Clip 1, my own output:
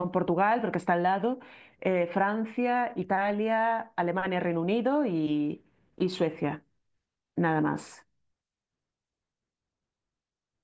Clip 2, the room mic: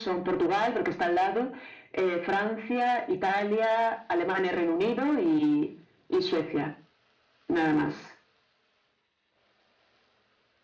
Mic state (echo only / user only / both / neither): echo only